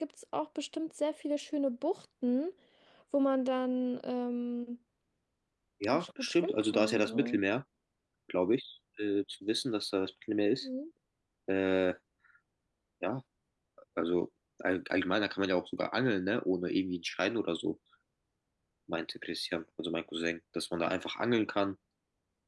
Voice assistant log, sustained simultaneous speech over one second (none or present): present